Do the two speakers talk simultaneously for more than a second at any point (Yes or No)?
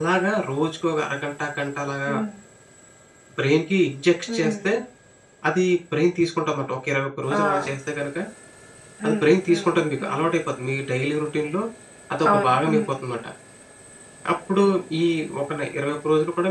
Yes